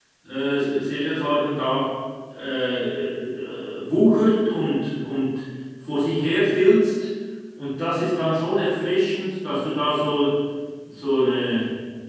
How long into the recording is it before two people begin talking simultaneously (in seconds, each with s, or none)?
none